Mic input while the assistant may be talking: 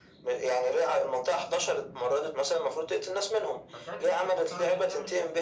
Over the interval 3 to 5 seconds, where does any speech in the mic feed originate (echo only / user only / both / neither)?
both